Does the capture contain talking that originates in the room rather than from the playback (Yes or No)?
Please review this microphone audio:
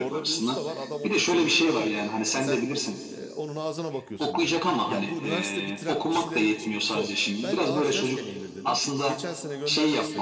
Yes